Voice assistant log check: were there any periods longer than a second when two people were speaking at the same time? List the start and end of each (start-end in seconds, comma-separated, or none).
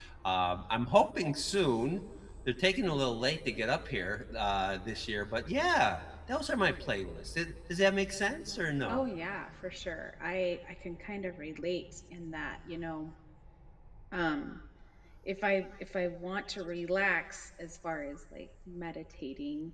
none